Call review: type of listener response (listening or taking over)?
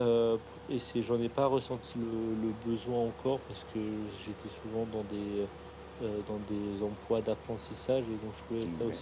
listening